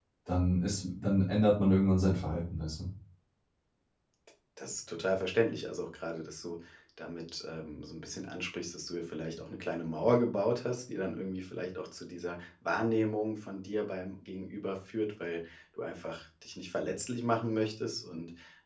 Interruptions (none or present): none